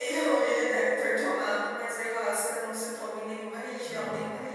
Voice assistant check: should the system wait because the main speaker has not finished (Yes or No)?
Yes